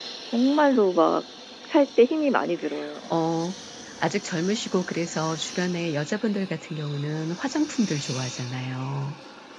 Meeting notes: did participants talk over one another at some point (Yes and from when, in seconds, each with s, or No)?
No